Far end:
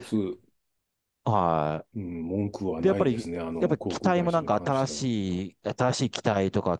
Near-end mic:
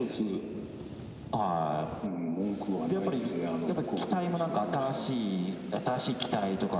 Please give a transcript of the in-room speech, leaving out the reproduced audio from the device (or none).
none